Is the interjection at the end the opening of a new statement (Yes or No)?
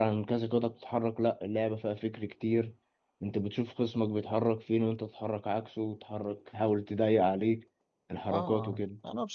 Yes